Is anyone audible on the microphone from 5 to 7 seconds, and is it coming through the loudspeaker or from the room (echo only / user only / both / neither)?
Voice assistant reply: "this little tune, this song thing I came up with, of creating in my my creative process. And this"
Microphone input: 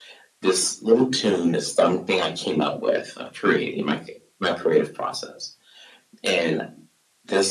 echo only